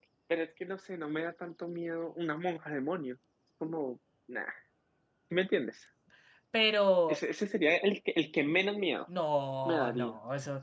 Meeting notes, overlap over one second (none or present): none